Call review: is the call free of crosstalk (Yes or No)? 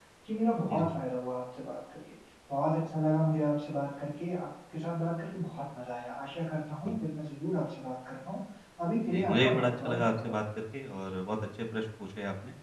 No